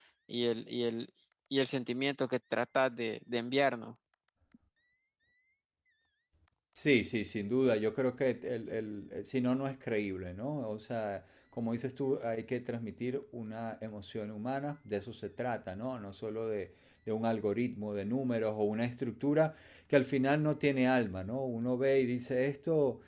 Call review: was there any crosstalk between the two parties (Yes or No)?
No